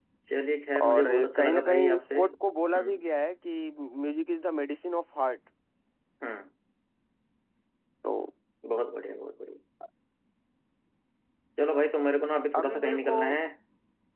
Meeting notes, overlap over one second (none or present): present